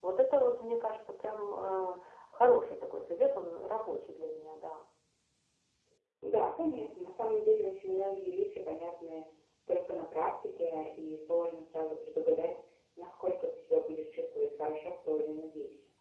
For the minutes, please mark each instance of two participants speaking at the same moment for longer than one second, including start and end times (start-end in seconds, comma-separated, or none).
none